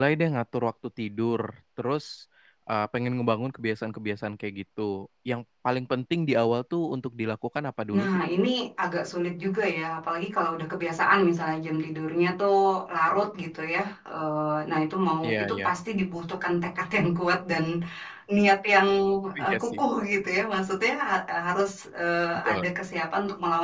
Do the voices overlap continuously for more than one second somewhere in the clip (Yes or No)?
No